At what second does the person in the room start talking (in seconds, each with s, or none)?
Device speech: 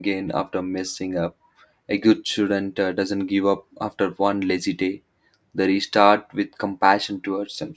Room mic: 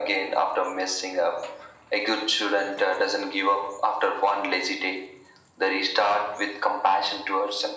none